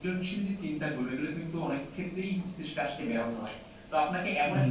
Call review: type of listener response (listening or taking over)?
listening